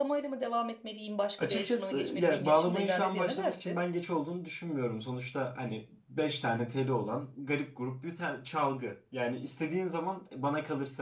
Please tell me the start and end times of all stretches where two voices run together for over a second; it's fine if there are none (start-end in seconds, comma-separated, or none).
1.4-3.8